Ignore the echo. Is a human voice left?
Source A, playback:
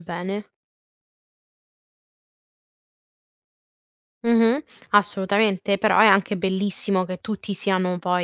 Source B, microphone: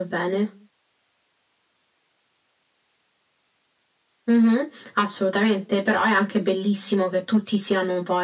No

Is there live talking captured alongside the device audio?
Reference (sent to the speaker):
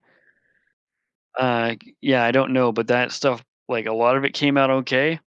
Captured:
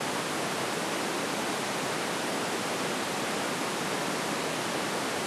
No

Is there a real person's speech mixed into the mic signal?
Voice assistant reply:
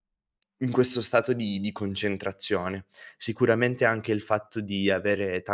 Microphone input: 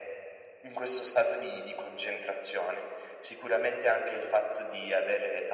No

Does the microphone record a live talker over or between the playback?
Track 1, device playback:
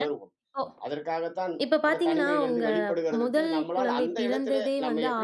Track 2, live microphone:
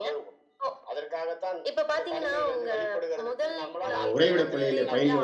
Yes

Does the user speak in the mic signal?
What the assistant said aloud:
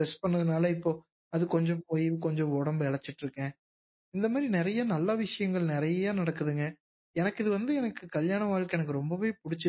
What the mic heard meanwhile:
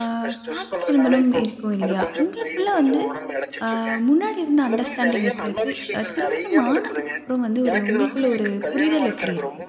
Yes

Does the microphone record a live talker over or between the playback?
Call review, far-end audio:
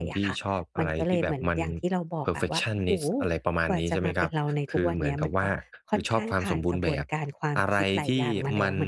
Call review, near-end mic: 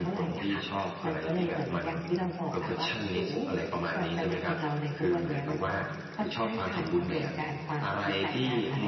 No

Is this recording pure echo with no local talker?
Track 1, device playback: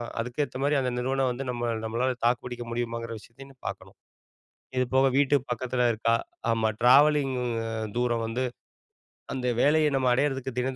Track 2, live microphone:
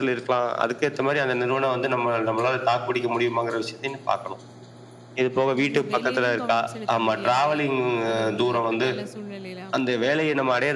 No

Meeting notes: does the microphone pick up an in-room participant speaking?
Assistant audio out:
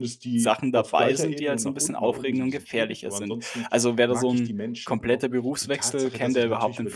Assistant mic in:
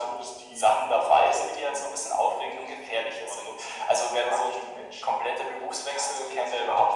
No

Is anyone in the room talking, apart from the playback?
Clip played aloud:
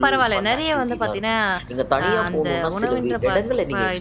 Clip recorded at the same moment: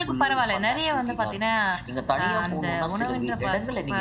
No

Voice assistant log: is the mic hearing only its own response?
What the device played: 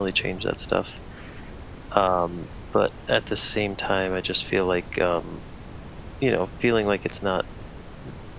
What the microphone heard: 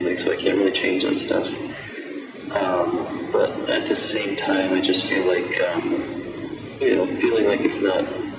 Yes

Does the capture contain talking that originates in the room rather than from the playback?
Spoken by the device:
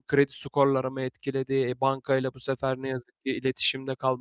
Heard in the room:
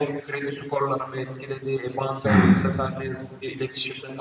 Yes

